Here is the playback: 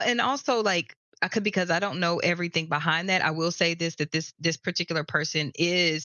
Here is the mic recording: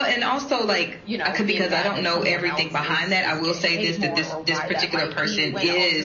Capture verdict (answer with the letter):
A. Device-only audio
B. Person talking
B